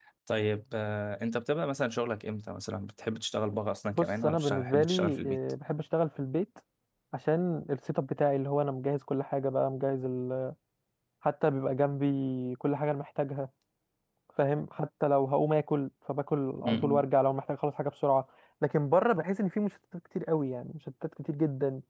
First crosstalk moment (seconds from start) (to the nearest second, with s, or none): 4 s